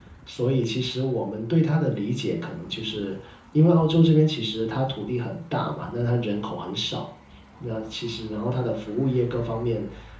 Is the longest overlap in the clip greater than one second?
No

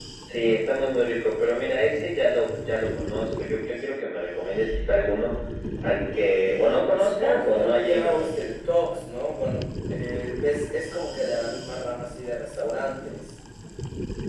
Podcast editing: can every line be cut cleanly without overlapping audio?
No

